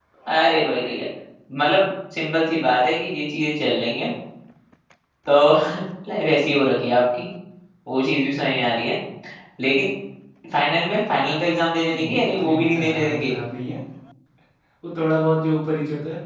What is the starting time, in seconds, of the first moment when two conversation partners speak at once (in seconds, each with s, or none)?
11.9 s